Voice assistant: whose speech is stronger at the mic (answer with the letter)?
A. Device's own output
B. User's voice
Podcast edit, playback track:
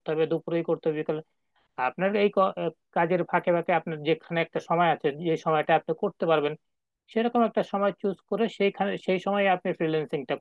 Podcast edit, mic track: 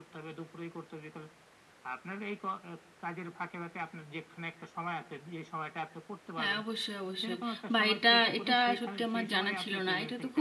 B